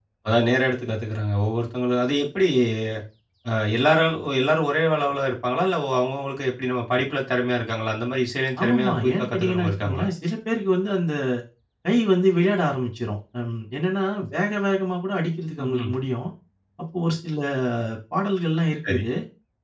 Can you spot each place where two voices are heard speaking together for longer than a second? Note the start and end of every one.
8.6-10.1

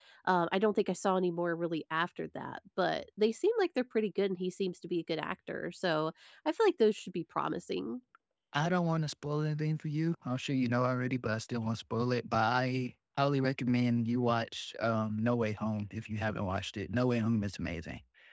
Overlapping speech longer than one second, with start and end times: none

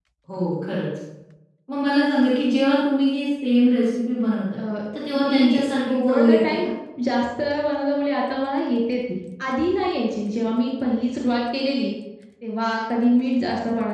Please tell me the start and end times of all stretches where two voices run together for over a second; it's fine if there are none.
5.1-6.7

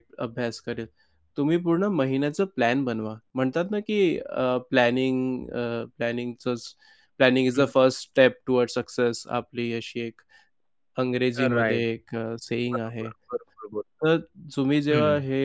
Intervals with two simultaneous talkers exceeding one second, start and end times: none

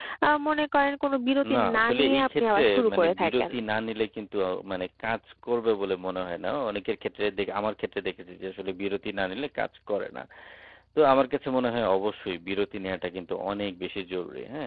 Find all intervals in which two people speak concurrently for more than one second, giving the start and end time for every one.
1.5-3.5

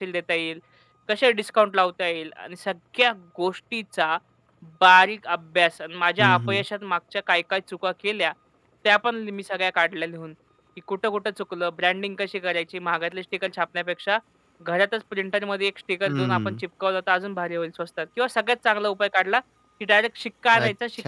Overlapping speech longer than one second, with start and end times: none

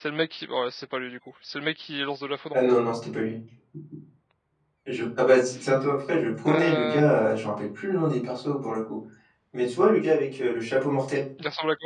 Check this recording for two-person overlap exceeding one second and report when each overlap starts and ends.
none

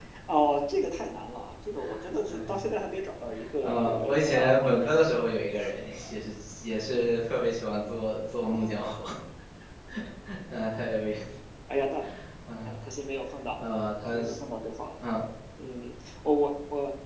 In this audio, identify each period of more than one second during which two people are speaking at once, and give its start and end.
3.6-4.9

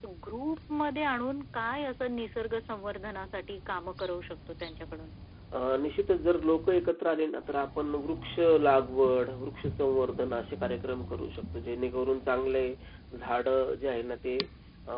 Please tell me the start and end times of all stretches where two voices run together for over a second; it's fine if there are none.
none

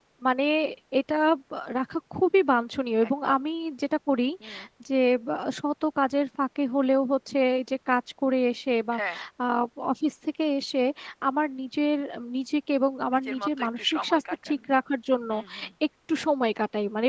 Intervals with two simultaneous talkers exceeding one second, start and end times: 13.2-14.5

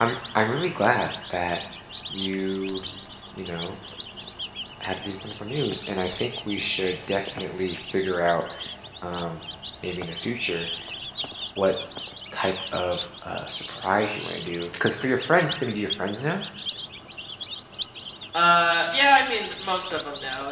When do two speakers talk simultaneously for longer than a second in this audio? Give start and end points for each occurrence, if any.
none

